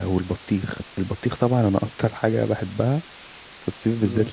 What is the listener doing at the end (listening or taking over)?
listening